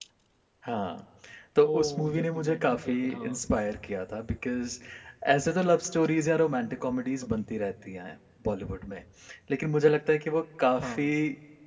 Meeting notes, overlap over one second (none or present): present